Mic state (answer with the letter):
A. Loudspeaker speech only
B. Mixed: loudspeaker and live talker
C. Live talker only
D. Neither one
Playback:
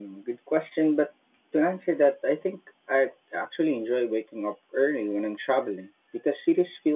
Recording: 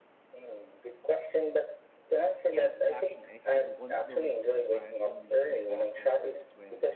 B